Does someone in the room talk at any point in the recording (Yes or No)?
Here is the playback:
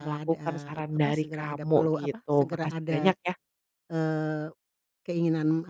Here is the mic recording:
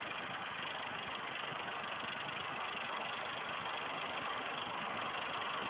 No